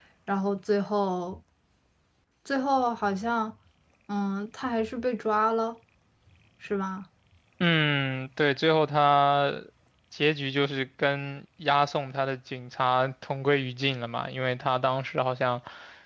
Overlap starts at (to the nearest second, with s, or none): none